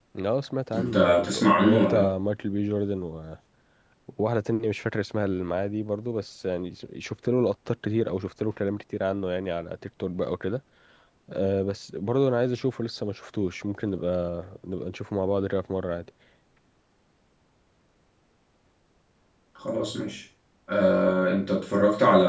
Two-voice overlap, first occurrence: 0.7 s

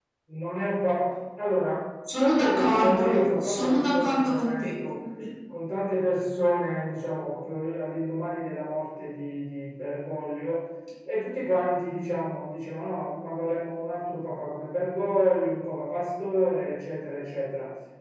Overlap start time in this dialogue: 2.1 s

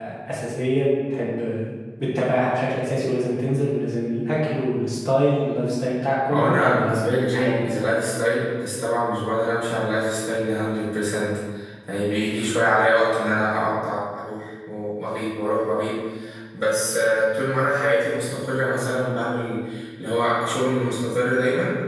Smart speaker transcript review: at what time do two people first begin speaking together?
6.3 s

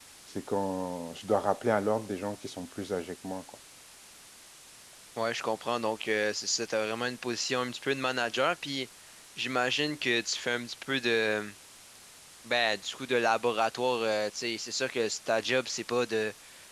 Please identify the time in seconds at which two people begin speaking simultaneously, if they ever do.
none

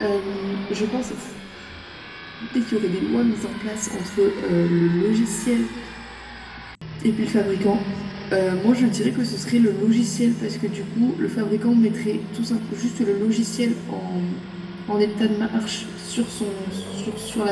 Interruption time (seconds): none

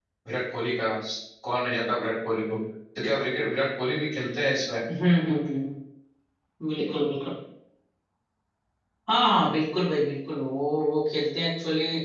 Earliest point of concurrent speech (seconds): none

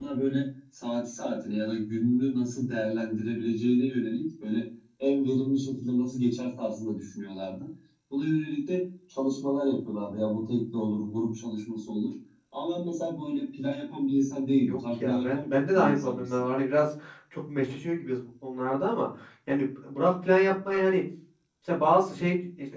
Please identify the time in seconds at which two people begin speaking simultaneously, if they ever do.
14.6 s

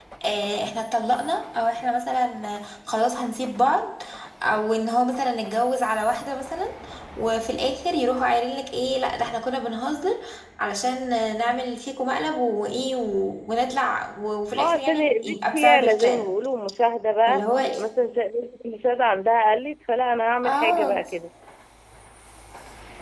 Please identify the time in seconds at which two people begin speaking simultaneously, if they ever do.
14.6 s

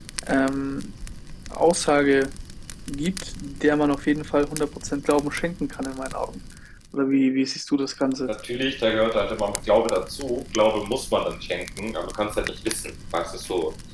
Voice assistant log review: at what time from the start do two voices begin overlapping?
none

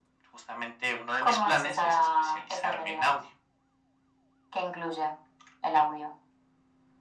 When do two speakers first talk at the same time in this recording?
1.2 s

